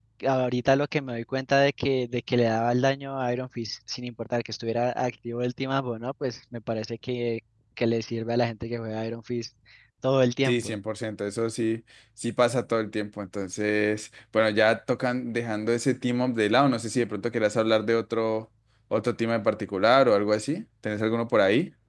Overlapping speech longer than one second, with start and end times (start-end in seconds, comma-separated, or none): none